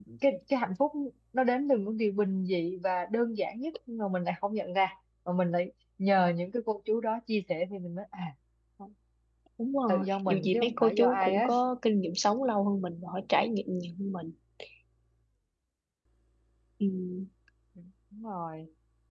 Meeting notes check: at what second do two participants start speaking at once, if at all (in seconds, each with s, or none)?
9.9 s